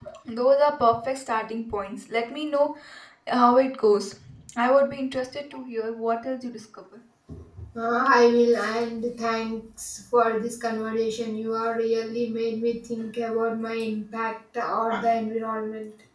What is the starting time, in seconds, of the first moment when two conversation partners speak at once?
none

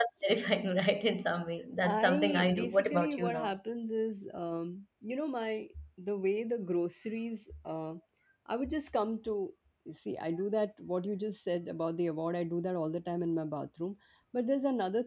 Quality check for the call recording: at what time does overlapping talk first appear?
1.8 s

